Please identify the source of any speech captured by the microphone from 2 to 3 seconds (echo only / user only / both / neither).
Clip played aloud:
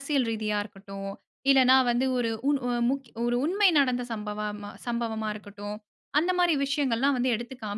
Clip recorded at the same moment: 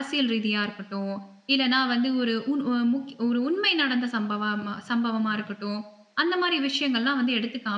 echo only